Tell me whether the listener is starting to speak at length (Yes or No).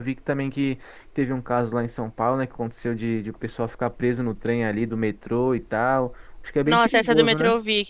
Yes